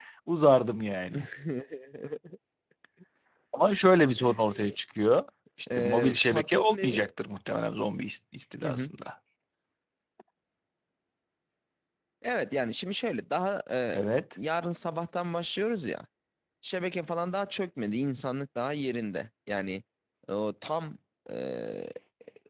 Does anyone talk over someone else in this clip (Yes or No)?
Yes